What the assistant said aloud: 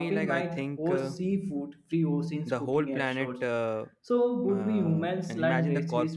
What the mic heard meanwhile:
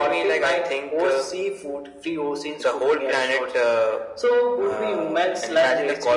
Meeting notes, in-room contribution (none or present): none